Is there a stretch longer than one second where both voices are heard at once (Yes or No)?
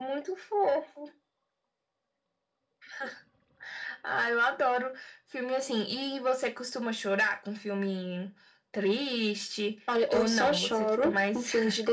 Yes